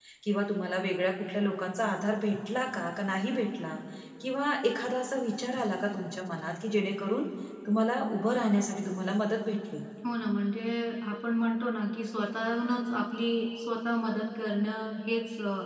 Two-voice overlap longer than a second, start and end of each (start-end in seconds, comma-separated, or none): none